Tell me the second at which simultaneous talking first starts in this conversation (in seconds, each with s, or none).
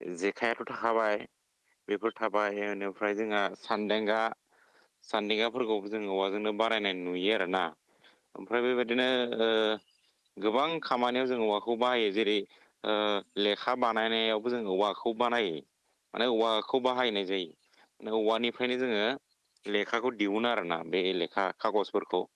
none